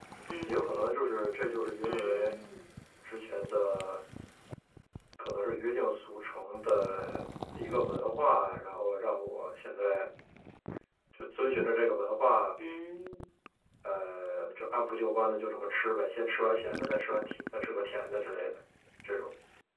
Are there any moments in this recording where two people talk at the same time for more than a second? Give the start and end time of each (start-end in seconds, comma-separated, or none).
none